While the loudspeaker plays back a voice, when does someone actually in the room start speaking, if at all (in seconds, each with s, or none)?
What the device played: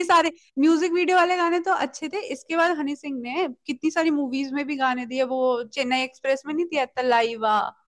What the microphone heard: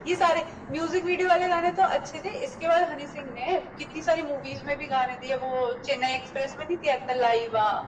none